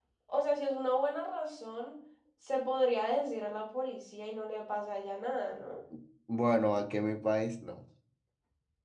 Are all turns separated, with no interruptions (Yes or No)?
Yes